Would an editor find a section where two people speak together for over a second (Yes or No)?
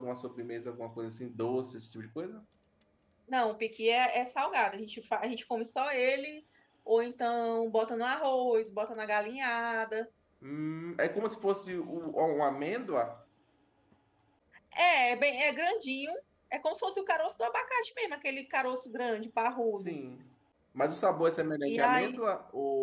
No